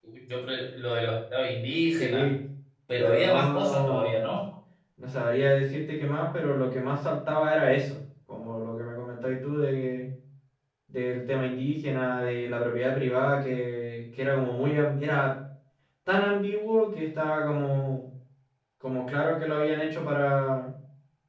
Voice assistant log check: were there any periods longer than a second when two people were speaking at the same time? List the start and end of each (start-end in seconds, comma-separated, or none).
3.0-4.3